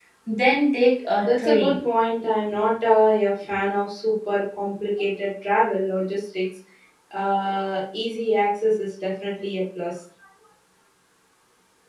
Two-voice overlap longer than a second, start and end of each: none

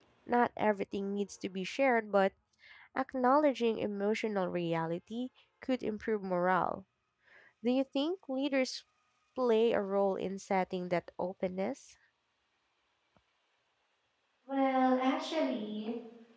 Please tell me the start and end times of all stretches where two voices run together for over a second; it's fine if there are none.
none

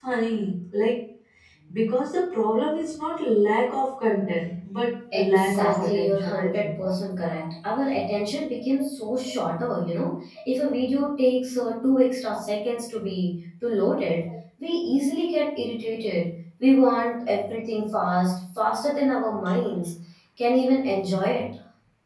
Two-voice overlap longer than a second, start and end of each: 5.1-6.8

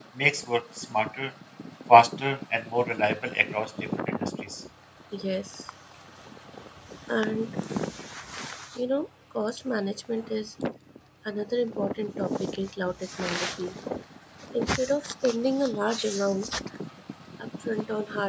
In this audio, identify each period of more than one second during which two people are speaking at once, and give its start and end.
none

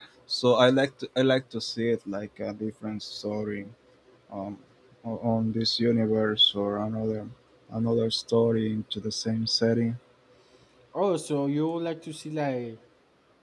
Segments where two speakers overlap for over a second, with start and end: none

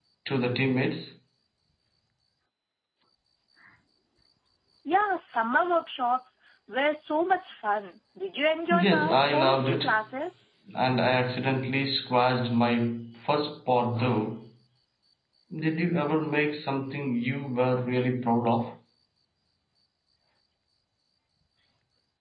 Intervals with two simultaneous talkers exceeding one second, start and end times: 8.7-10.0

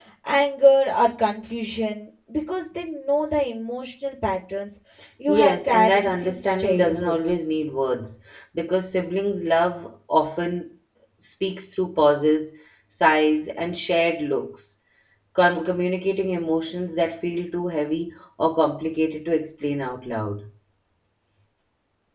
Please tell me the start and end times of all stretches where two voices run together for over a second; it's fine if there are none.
5.3-7.1

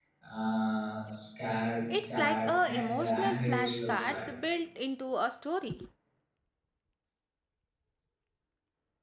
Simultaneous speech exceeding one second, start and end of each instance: 1.9-4.3

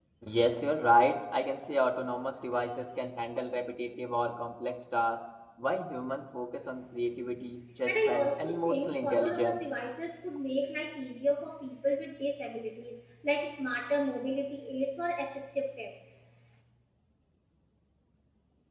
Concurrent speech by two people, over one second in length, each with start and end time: 7.9-9.6

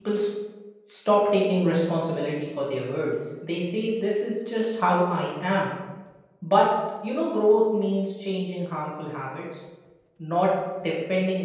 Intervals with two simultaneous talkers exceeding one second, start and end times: none

